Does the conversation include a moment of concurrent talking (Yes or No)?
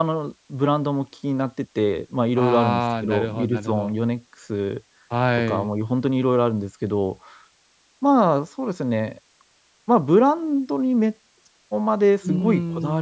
Yes